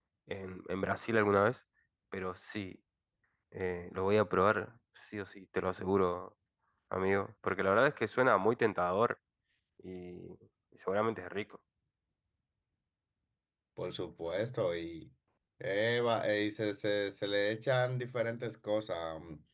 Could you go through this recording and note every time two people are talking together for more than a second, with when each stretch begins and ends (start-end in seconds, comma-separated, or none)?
none